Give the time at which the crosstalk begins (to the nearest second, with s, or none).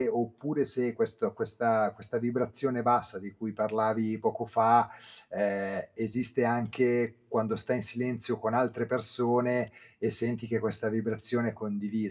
none